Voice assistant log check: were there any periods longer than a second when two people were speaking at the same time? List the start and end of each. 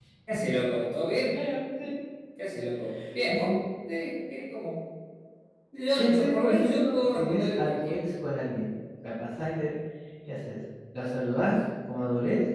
6.0-8.0

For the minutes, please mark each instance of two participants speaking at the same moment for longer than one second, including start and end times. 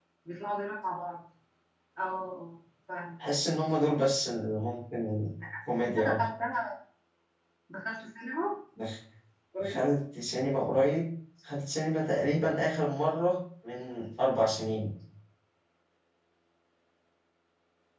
none

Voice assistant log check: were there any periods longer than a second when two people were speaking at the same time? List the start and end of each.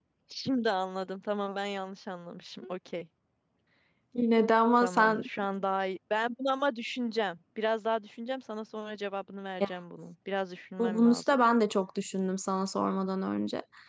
none

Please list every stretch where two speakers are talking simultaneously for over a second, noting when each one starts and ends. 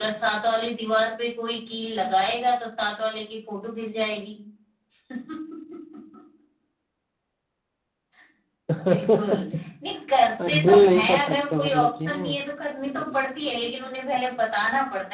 10.5-12.2

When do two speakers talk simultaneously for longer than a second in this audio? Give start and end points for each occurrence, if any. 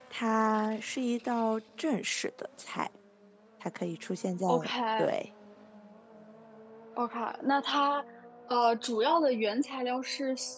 none

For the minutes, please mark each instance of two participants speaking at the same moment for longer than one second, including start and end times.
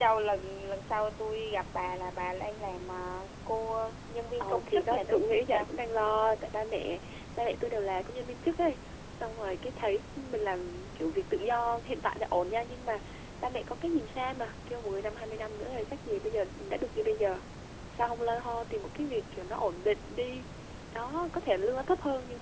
4.4-5.7

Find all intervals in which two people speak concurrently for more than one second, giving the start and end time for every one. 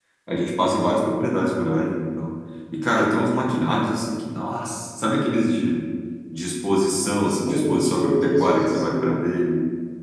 7.3-9.2

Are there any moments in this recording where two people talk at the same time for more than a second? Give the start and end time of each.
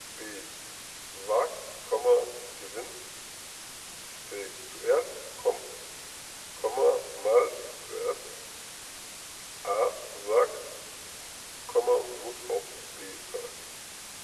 none

